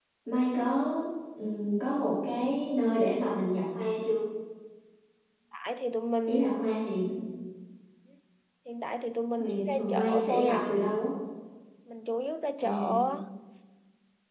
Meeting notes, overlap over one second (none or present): present